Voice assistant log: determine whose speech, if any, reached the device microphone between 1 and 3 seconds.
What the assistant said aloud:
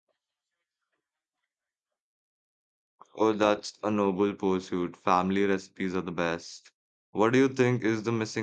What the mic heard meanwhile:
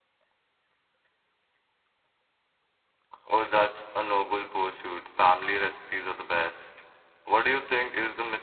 neither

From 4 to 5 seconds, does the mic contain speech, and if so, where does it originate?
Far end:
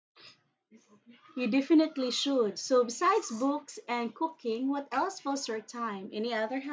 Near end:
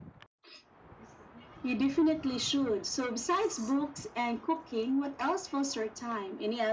echo only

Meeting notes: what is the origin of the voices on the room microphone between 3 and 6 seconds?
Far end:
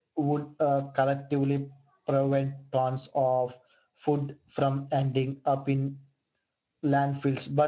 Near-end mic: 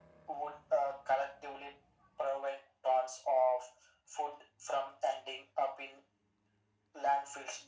echo only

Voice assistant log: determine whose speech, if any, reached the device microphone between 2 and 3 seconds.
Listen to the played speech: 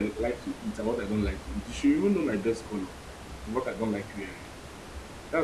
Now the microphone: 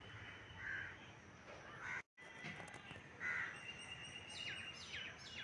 neither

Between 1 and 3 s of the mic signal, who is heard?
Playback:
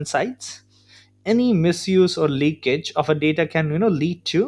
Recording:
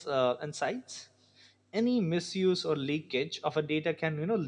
echo only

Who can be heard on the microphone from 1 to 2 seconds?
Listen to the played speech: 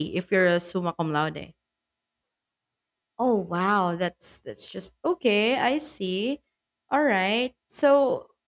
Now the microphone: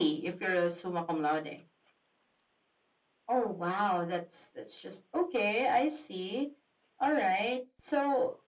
echo only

